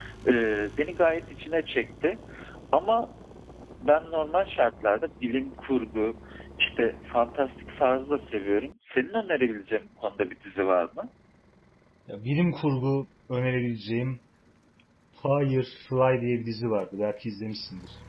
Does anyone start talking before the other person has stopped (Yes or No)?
No